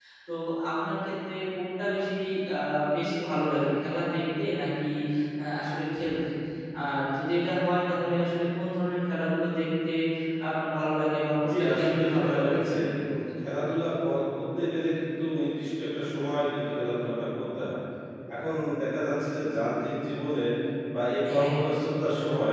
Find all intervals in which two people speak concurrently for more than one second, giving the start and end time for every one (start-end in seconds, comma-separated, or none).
11.5-12.8